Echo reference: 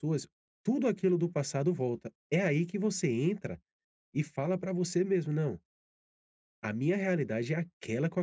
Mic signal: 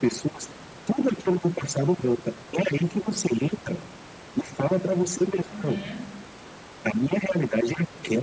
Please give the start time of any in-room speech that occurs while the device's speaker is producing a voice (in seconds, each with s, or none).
5.5 s